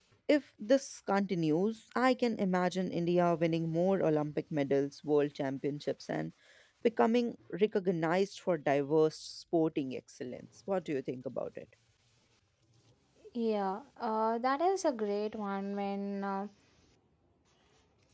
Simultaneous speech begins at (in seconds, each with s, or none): none